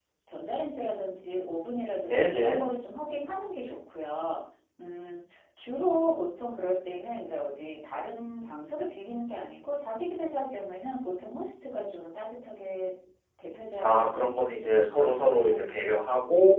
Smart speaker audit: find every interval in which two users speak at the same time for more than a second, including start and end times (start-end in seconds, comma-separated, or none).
13.8-15.8